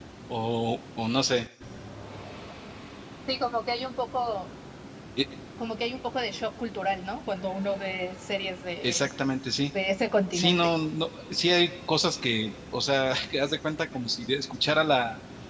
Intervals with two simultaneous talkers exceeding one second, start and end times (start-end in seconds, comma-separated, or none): none